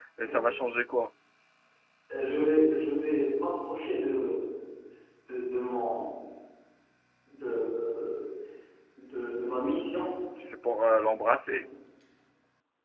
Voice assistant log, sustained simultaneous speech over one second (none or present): none